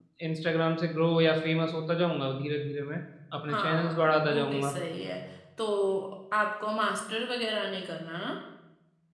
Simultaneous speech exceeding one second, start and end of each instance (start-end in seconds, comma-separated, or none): 3.5-4.7